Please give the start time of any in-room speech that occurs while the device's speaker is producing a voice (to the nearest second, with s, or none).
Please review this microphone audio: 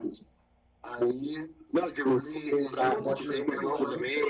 3 s